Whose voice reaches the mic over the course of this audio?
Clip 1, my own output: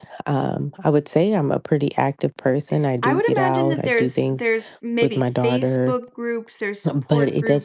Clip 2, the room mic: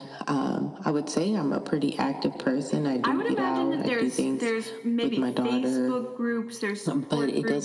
echo only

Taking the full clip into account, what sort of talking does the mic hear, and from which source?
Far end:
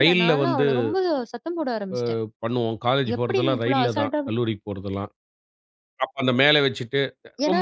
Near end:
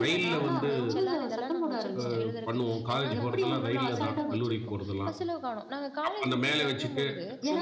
both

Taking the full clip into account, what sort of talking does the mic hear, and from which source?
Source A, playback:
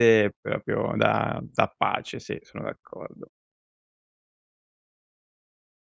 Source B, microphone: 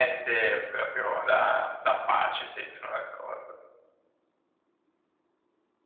echo only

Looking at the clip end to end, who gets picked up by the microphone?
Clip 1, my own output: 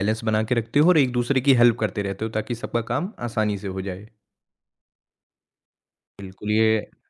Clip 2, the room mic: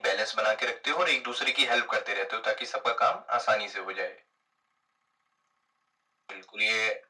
echo only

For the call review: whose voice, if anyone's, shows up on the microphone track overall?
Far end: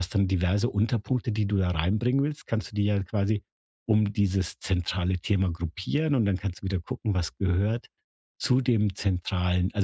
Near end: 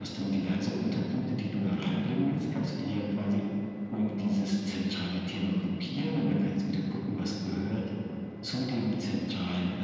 echo only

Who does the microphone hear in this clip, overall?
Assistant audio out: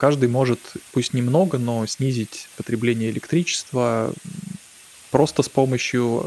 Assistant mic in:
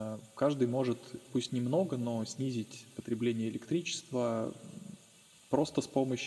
echo only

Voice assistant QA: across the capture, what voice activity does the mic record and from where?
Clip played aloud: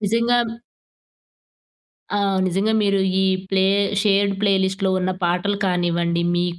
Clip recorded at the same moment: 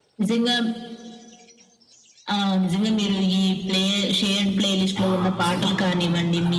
both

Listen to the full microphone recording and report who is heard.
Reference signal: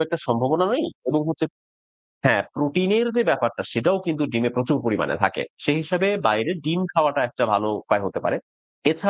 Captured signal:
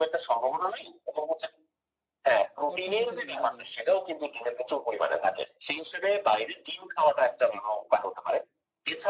both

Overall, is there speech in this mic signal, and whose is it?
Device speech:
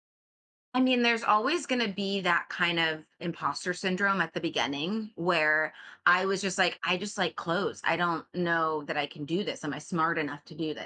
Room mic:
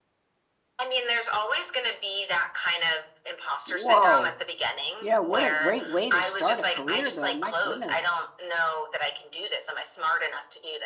both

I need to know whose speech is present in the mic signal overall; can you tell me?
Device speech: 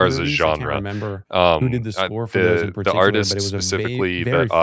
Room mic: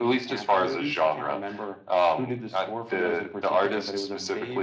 echo only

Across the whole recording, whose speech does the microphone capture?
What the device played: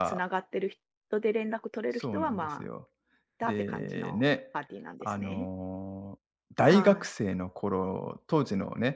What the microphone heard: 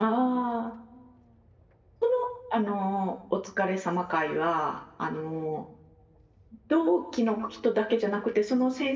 user only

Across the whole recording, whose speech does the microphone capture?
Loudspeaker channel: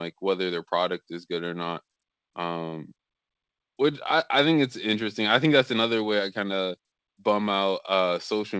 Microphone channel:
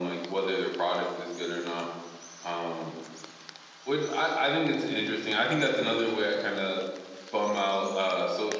echo only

